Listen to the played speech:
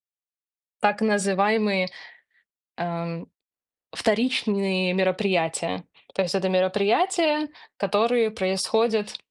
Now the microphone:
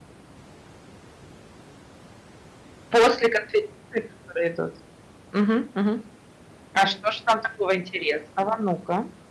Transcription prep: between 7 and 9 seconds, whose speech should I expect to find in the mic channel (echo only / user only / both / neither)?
user only